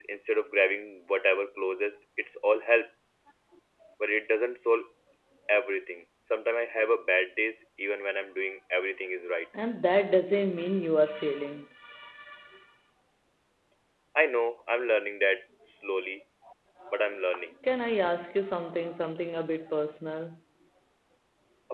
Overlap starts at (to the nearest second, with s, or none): none